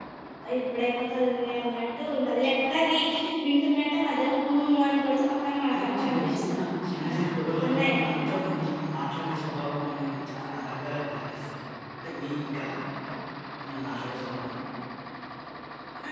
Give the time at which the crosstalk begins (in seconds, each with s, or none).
5.7 s